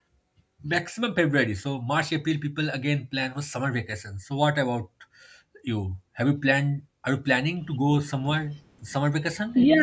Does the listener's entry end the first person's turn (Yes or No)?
Yes